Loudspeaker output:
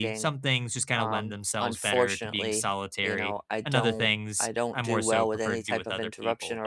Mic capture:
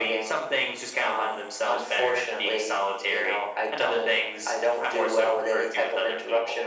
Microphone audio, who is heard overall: echo only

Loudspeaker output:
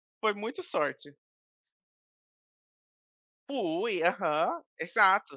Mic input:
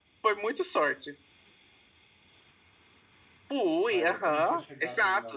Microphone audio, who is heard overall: both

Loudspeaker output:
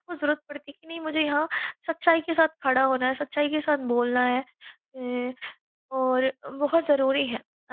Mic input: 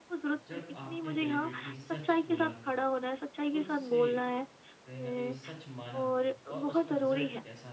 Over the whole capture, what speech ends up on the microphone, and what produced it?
both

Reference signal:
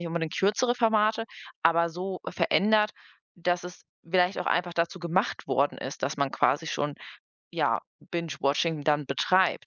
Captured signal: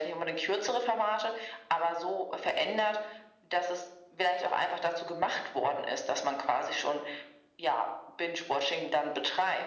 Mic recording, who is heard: echo only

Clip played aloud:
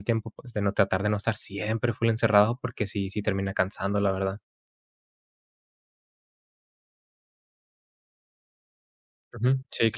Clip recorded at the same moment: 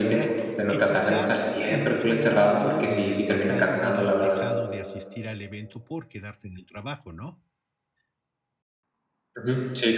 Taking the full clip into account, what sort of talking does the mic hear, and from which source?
both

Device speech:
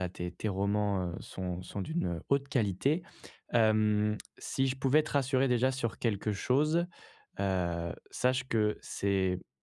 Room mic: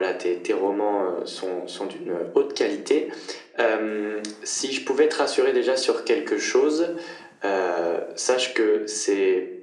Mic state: echo only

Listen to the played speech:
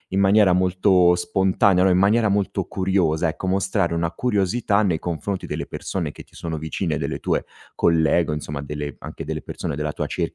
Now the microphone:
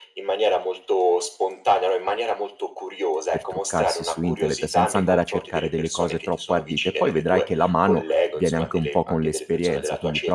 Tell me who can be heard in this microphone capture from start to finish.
both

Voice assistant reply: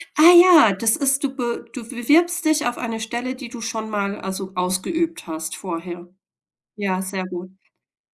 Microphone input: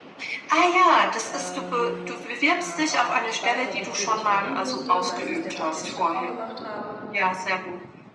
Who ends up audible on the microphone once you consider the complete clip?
both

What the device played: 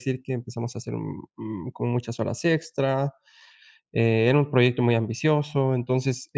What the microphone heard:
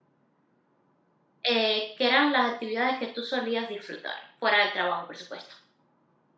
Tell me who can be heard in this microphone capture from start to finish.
user only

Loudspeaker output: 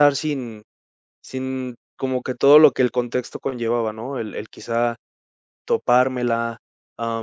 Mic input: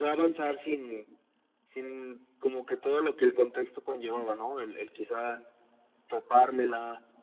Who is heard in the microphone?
echo only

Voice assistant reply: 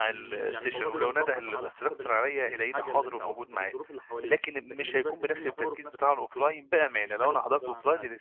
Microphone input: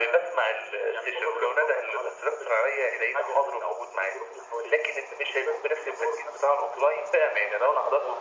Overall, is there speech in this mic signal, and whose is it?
echo only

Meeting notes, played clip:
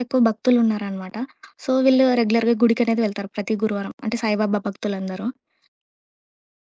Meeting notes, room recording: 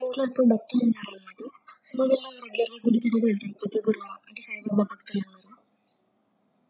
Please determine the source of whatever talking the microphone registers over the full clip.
echo only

